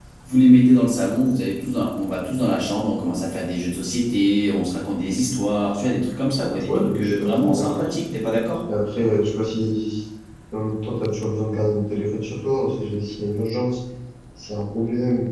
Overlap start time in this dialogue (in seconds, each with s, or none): 6.6 s